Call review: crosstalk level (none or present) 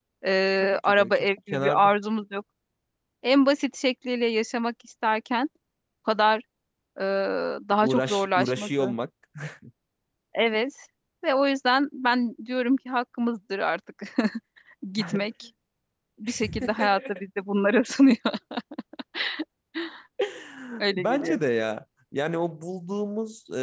present